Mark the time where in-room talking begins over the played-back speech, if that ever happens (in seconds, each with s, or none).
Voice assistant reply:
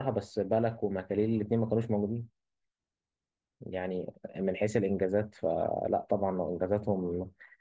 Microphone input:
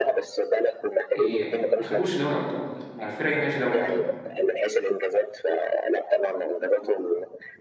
1.1 s